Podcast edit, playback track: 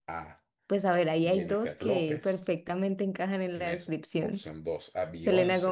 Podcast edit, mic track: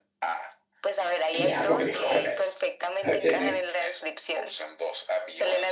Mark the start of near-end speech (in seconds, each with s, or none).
1.3 s